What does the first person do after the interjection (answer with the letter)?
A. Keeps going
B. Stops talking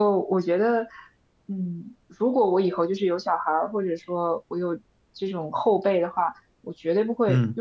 A